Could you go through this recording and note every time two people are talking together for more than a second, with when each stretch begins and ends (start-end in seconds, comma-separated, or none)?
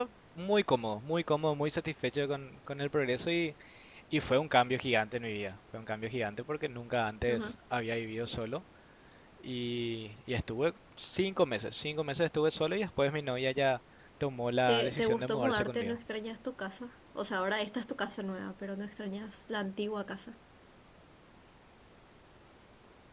14.7-16.0